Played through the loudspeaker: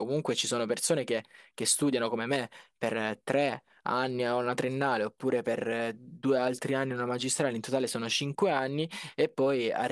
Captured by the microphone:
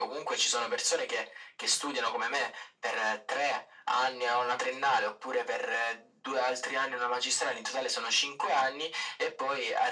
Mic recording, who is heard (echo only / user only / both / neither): echo only